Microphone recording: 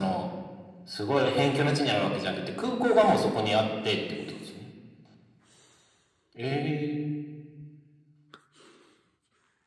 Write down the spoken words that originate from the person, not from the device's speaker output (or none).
none